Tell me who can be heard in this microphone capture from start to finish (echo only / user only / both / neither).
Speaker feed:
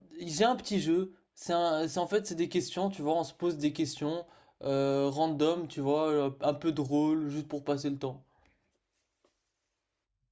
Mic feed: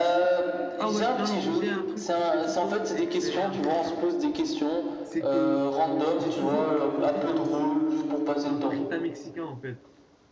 both